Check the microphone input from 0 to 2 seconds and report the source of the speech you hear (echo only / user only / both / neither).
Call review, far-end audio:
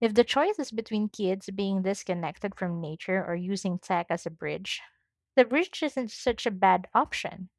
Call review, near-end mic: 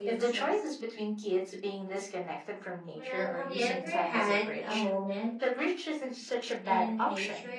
both